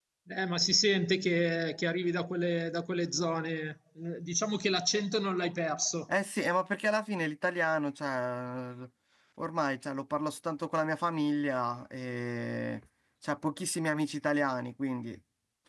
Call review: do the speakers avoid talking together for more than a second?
Yes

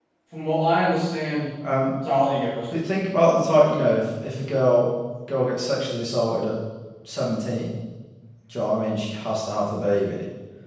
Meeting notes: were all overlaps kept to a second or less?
Yes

